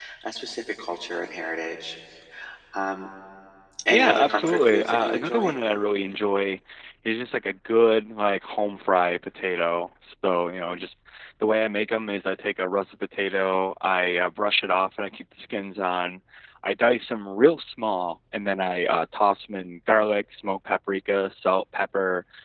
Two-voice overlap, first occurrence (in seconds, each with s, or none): 3.9 s